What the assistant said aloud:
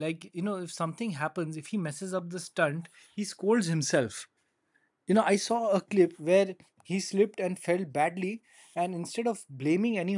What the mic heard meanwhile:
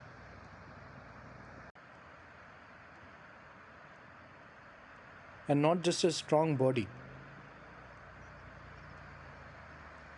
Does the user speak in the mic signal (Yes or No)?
Yes